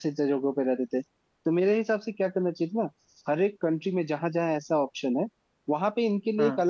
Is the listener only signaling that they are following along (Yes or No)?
Yes